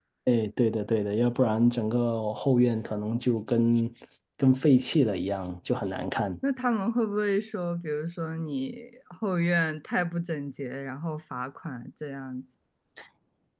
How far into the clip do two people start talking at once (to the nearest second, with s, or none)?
none